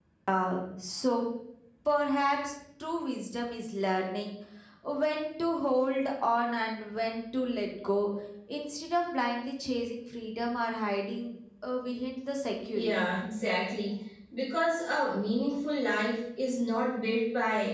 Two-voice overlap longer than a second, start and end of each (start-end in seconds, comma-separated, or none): none